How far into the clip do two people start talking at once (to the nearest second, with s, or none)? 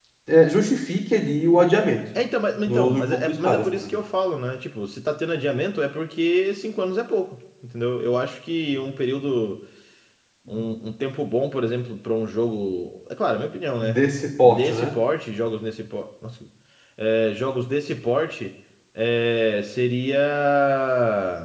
3 s